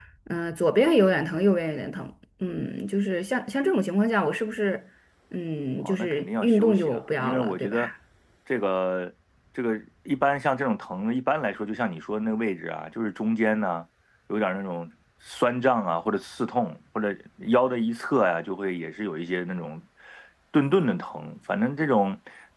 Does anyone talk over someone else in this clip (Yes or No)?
Yes